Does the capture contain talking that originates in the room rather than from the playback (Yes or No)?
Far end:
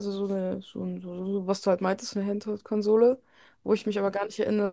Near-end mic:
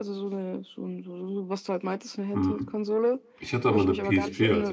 Yes